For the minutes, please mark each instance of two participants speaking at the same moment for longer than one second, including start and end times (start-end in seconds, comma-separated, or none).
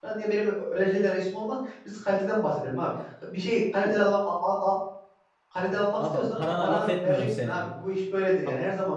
6.1-7.6